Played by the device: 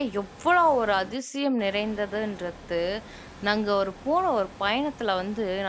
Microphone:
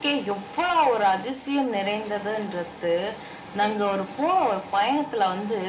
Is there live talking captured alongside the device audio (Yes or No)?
Yes